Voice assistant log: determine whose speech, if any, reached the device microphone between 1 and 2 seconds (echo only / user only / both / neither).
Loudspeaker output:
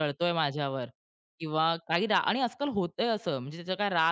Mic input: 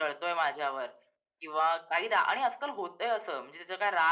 echo only